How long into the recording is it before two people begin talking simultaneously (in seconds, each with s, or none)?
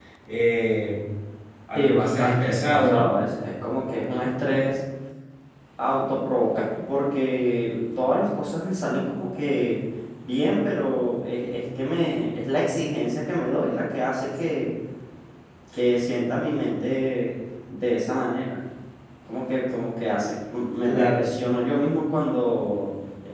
1.8 s